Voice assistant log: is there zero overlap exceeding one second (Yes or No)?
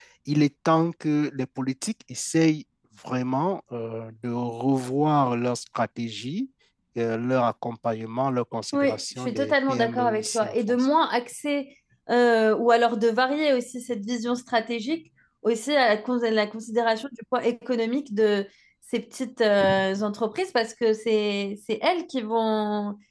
No